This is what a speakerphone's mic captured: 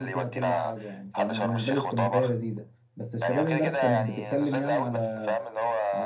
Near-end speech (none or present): present